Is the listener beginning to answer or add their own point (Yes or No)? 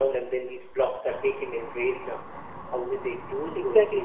Yes